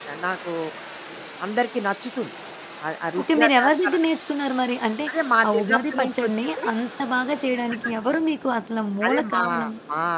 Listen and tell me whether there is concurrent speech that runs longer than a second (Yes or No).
Yes